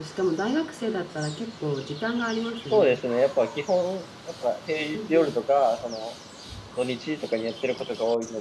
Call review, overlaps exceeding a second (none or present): none